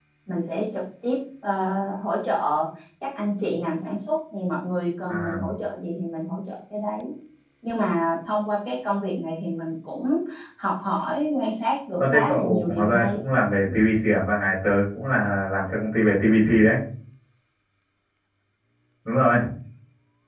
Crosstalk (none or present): present